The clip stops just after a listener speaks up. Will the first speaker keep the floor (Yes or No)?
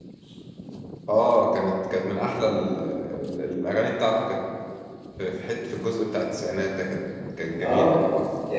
No